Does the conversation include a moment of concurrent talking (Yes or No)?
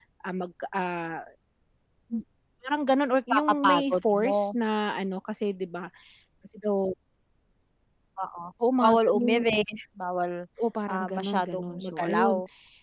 Yes